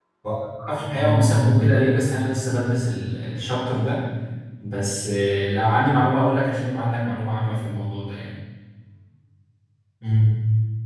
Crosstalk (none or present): present